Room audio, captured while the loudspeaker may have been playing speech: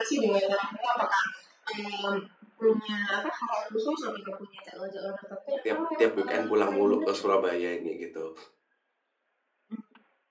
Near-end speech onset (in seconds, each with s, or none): 5.6 s